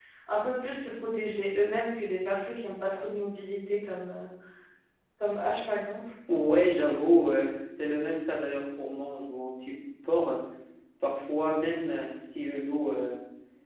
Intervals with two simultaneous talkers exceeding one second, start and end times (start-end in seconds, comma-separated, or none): none